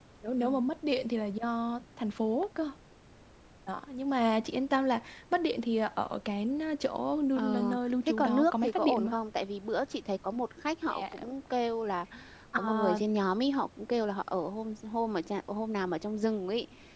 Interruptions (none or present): present